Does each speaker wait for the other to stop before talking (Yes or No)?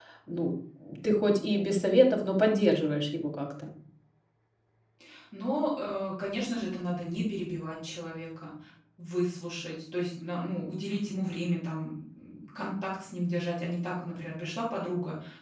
Yes